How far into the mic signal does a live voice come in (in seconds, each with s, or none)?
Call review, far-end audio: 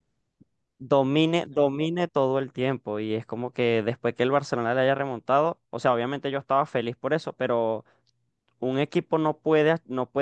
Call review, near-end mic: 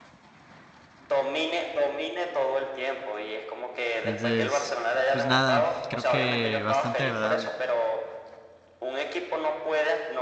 3.9 s